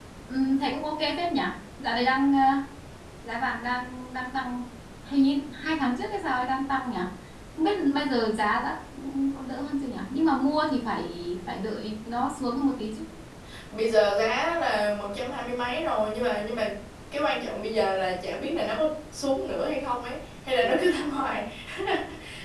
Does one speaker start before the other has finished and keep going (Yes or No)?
No